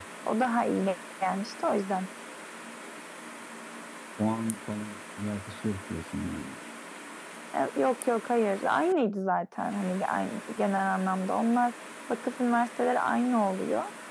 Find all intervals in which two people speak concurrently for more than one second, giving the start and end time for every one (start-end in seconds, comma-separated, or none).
none